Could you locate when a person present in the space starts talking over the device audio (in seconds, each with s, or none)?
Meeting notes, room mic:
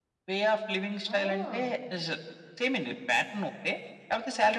1.1 s